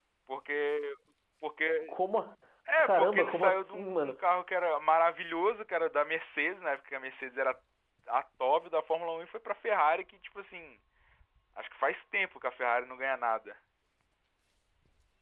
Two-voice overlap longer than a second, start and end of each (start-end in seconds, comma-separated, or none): 2.8-4.1